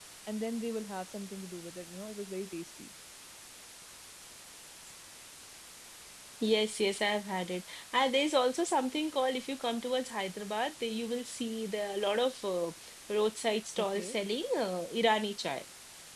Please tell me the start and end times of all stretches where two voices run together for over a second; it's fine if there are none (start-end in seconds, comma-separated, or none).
none